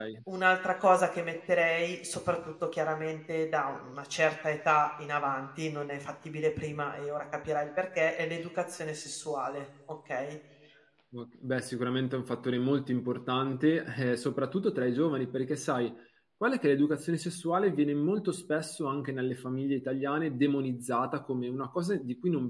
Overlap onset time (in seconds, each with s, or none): none